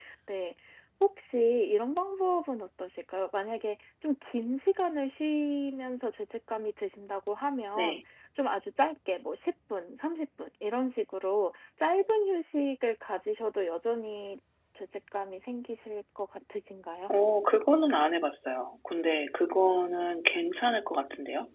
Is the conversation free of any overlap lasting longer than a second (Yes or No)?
Yes